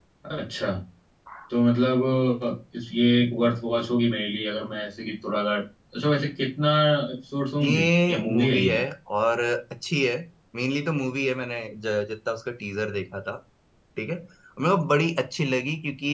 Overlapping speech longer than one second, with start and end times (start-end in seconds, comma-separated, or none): 7.6-8.8